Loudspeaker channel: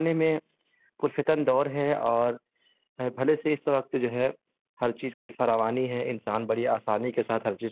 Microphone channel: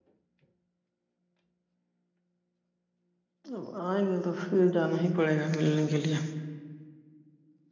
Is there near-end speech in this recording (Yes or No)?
Yes